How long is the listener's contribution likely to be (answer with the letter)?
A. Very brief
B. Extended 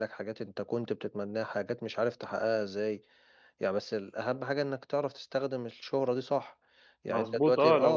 B